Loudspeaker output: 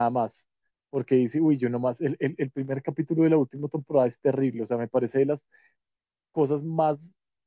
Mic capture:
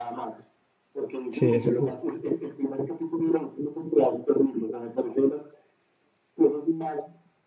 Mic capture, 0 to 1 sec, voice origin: echo only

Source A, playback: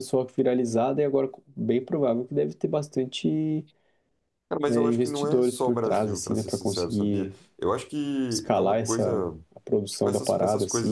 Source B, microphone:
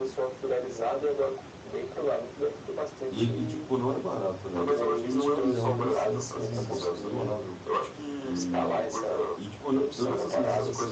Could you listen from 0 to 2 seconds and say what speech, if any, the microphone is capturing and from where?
echo only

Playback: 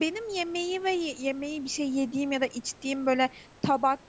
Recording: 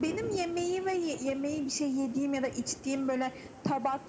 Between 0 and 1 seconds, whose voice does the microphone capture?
echo only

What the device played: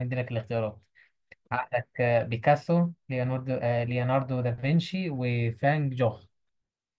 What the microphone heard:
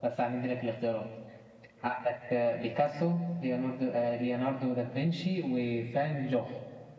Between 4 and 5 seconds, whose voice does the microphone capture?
echo only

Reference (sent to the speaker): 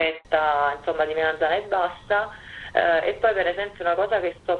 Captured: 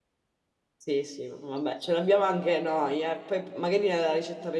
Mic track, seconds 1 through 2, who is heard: user only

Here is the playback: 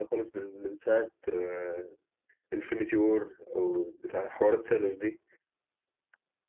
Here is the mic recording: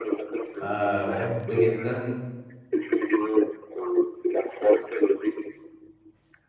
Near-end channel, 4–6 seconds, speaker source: echo only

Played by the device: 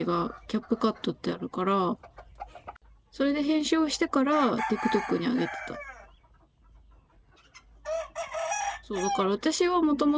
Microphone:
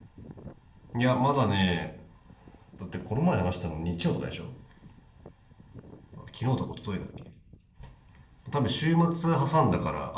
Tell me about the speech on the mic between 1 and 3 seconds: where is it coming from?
user only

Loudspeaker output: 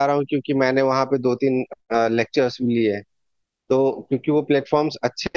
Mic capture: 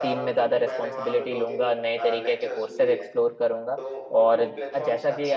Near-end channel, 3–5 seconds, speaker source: both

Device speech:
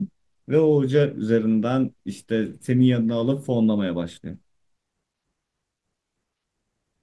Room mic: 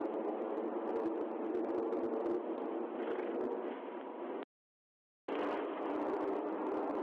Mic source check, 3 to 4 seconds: neither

